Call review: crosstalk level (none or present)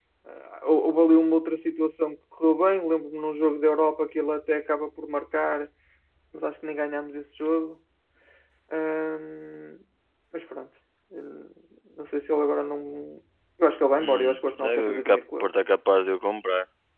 present